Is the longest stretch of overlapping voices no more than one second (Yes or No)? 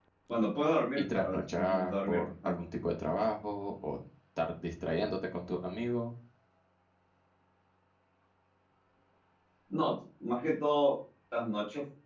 No